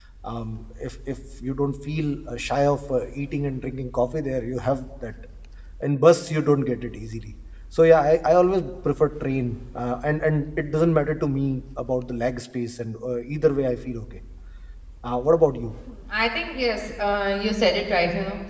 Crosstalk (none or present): none